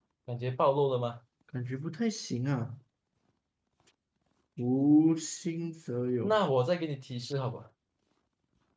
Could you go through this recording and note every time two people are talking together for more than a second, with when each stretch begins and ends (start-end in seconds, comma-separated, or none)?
none